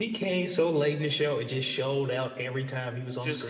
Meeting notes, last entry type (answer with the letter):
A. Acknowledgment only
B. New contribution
B